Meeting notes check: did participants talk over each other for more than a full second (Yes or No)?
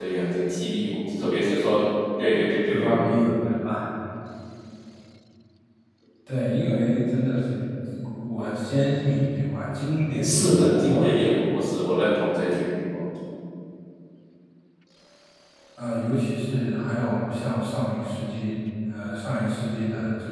Yes